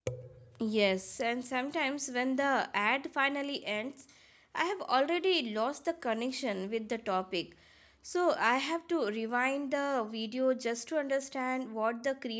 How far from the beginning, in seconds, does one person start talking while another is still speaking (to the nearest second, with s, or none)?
none